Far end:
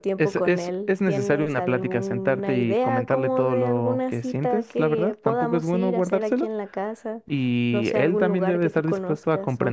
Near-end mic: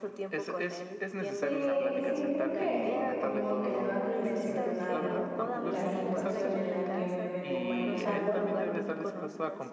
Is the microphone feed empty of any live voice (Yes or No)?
No